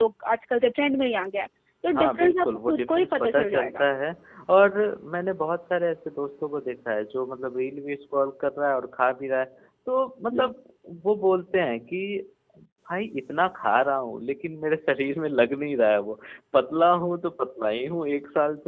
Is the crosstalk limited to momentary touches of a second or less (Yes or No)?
No